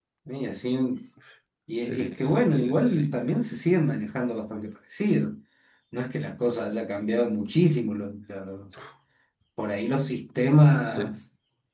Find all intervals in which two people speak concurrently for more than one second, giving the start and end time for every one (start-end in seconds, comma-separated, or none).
1.8-3.1